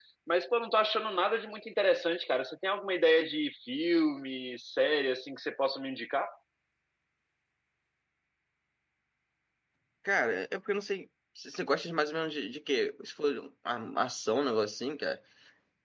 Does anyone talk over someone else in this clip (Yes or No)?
No